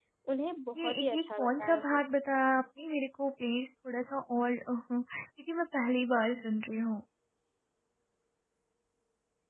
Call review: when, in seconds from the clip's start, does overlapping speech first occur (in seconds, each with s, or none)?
0.8 s